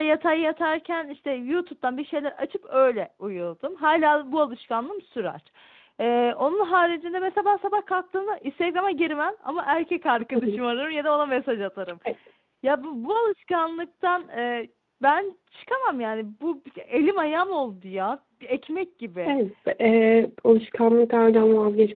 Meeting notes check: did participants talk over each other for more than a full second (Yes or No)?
No